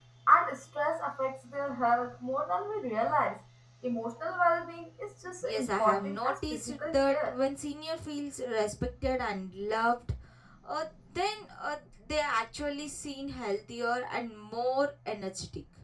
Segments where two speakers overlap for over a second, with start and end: 5.4-7.3

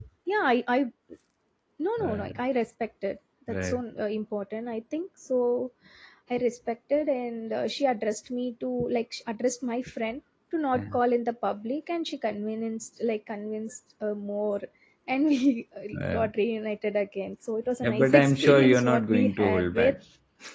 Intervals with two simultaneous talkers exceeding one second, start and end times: 17.8-19.9

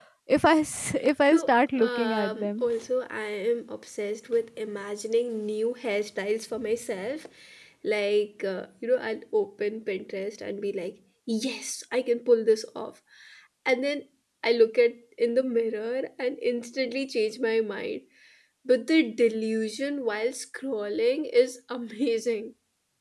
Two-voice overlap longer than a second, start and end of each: 1.3-2.6

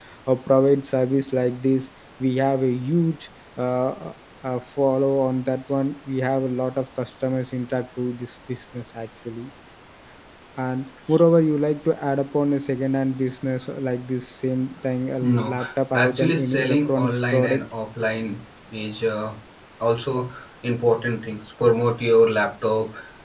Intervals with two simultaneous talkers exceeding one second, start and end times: 15.9-17.6

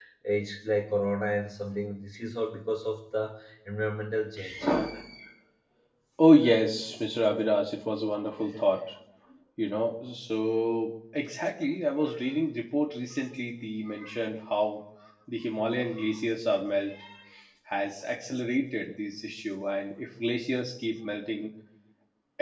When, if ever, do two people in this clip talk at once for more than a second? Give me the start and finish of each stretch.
none

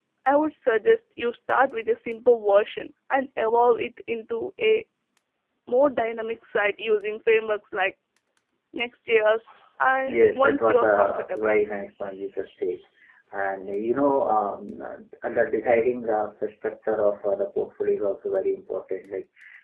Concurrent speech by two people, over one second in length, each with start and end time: 10.1-11.5

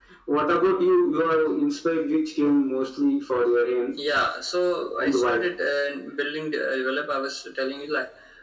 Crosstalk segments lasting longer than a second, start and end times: none

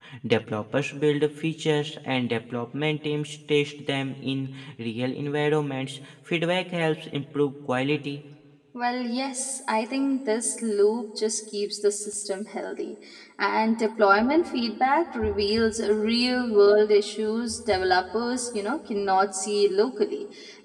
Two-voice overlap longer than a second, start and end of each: none

